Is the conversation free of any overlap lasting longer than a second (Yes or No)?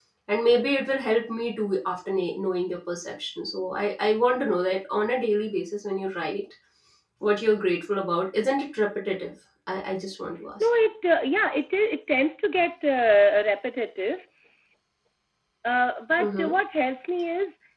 Yes